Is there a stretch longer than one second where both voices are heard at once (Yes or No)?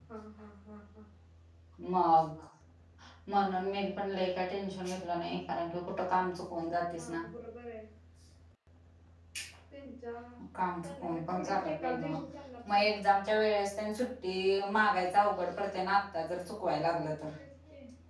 Yes